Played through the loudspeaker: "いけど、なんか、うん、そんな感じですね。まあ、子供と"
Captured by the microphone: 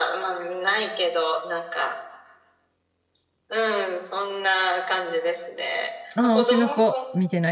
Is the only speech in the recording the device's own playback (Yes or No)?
No